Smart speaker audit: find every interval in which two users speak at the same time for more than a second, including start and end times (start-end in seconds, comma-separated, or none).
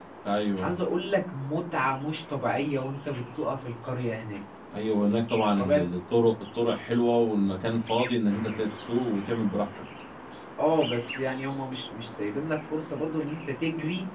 none